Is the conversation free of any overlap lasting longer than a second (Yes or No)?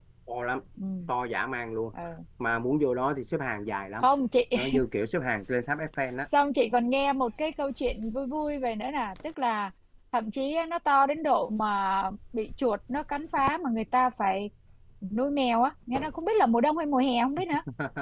Yes